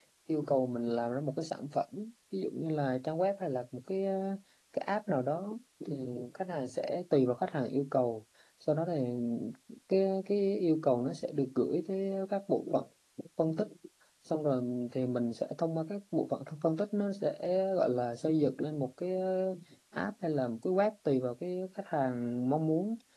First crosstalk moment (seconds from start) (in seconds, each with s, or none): none